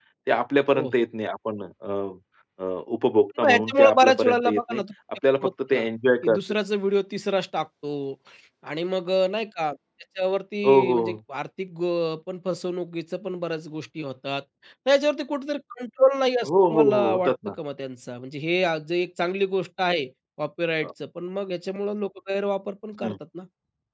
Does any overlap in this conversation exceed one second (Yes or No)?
Yes